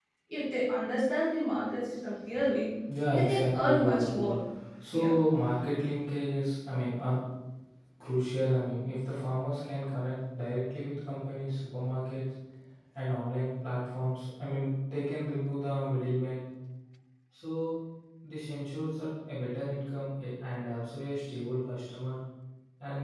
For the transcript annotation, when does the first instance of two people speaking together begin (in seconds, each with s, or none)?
3.1 s